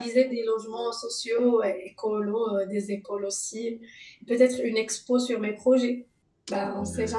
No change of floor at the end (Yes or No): No